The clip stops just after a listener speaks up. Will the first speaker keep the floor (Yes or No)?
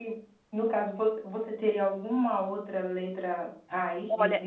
No